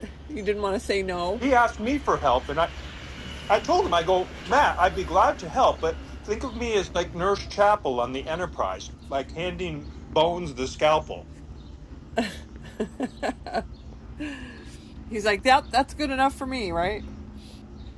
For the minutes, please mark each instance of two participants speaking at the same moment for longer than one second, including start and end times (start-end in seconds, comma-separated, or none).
none